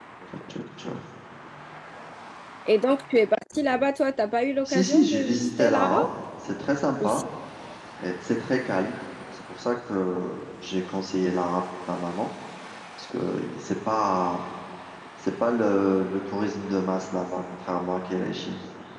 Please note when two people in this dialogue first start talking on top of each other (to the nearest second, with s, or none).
5 s